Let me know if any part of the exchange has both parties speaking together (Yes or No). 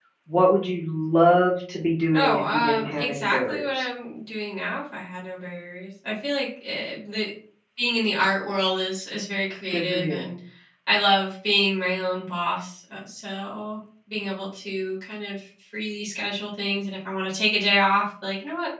Yes